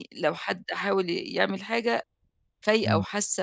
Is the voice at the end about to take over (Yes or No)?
No